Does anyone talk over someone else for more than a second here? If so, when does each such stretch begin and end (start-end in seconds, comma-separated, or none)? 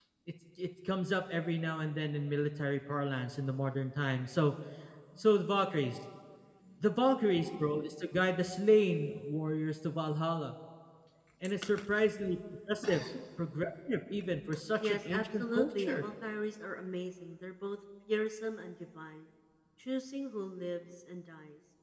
14.8-16.0